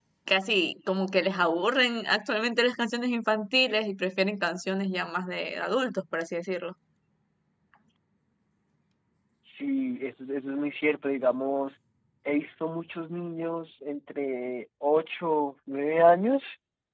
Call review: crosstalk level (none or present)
none